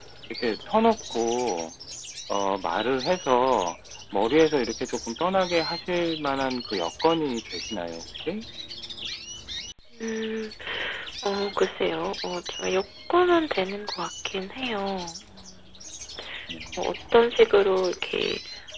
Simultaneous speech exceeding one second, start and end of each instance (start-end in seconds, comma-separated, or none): none